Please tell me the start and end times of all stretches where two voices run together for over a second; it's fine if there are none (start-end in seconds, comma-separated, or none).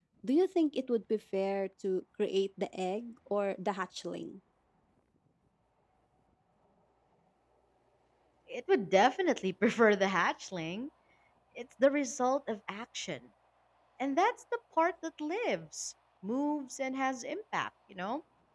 none